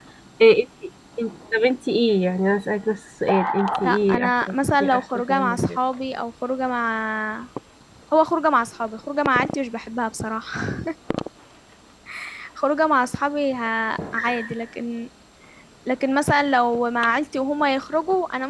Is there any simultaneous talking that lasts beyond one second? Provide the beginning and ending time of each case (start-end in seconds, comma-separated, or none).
3.8-5.8